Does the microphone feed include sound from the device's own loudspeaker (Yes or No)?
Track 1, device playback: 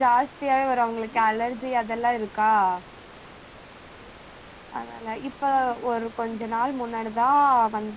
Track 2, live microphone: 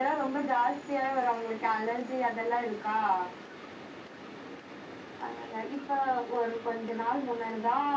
Yes